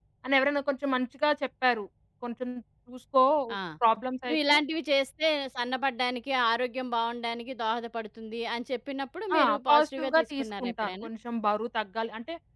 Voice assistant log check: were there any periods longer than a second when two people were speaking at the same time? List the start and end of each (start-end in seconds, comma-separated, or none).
9.4-11.1